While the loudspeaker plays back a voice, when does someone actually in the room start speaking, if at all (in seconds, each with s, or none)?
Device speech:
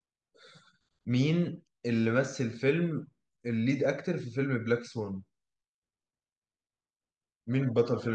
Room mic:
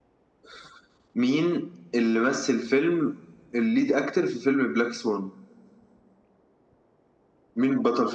none